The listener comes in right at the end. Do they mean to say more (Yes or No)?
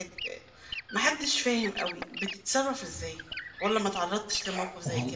Yes